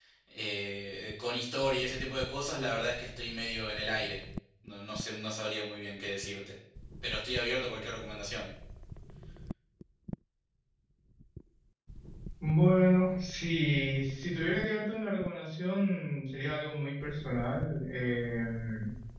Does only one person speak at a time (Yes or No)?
Yes